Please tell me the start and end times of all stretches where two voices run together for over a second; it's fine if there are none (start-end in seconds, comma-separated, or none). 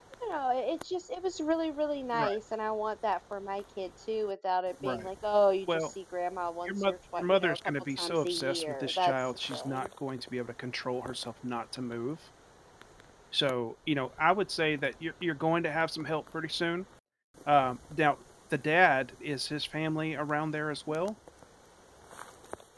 6.7-9.9